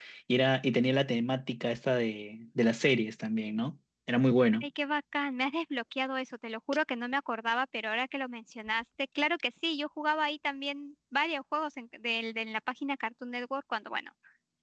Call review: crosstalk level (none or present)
none